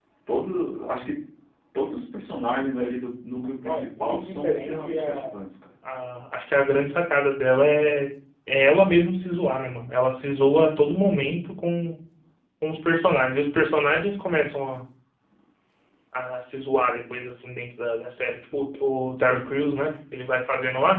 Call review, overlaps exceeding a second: present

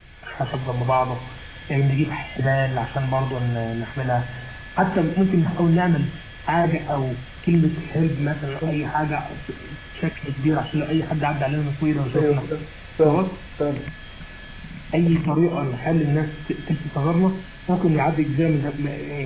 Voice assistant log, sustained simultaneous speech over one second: none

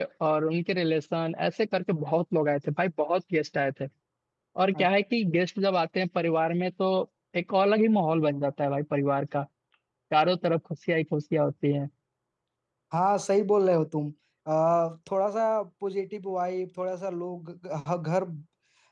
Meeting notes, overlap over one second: none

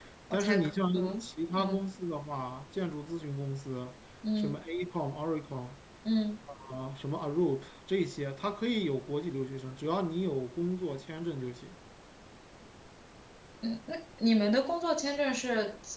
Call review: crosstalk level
present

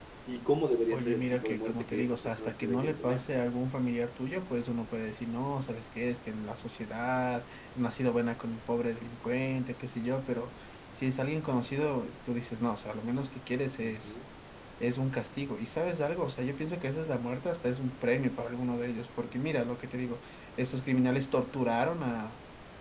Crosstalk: present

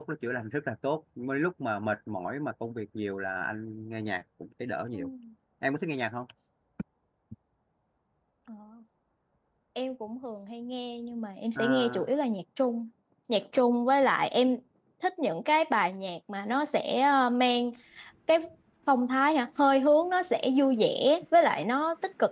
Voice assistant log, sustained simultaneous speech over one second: none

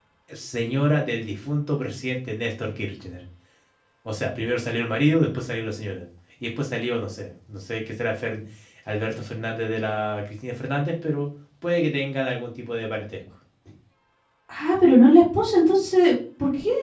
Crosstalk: none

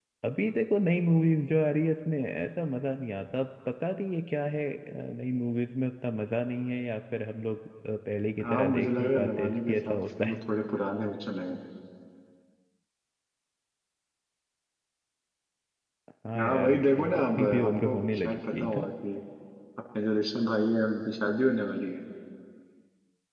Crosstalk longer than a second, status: present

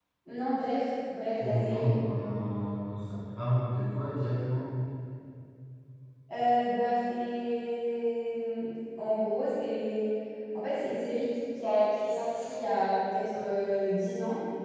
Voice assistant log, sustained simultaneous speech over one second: none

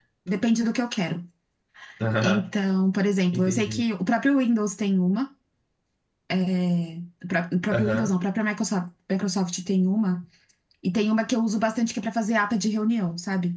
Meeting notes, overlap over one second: none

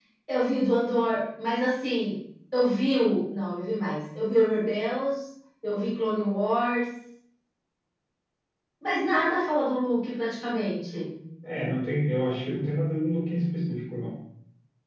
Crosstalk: none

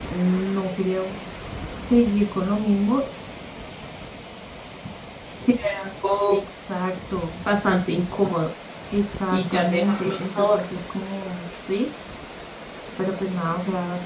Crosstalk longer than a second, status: present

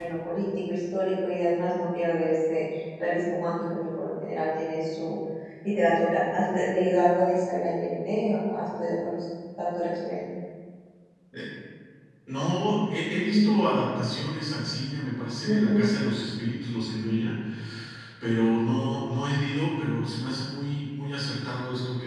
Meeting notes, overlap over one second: none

